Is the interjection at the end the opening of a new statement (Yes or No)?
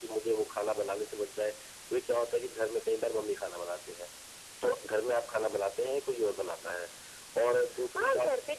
Yes